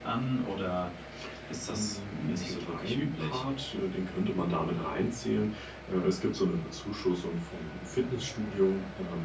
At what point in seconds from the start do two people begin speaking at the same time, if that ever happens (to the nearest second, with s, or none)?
2 s